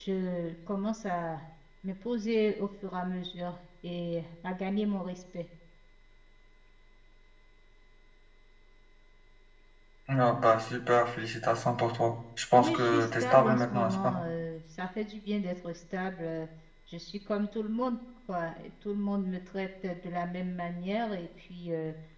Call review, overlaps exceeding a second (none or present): present